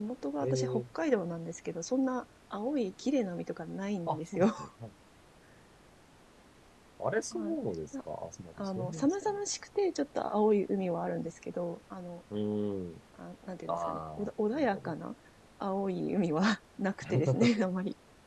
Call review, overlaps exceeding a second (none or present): present